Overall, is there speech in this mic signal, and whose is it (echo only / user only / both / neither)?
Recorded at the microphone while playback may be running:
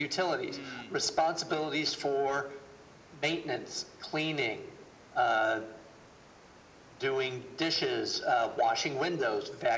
both